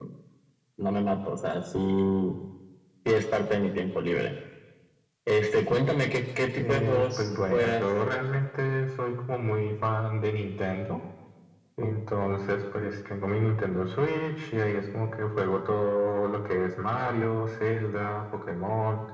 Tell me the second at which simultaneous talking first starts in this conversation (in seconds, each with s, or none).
6.6 s